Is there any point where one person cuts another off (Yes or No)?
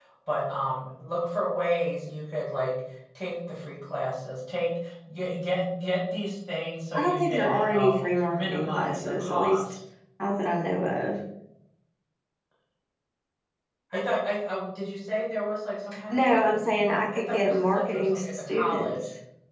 Yes